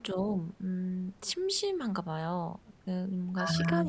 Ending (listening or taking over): listening